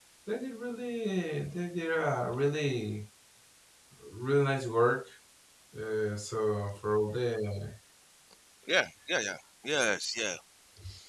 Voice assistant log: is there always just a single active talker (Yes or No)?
Yes